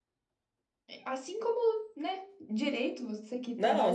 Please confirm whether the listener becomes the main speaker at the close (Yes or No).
Yes